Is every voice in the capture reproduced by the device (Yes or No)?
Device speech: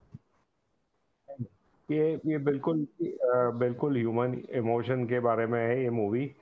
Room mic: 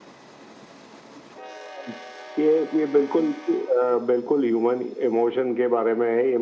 Yes